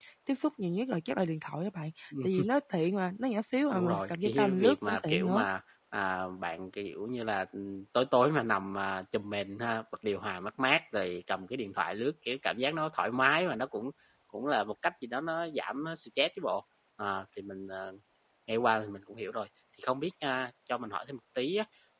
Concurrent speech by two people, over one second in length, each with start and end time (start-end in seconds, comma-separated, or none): 3.7-5.5